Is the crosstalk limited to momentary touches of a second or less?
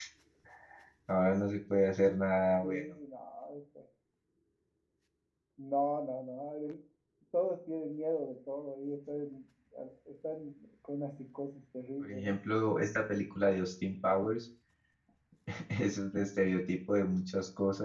Yes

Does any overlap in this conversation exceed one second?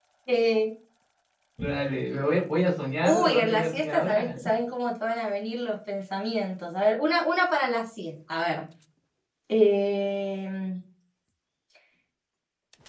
Yes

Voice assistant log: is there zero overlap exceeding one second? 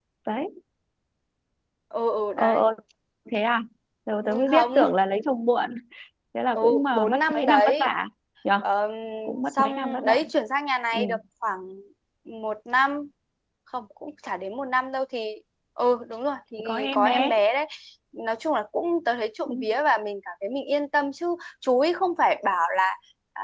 No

